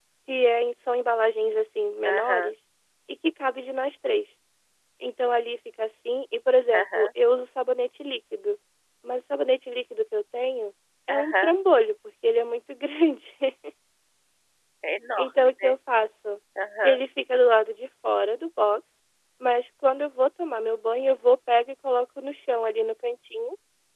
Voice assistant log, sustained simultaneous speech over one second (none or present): none